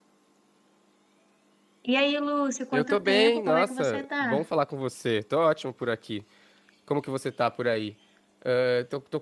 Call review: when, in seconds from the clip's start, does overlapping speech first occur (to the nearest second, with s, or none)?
3 s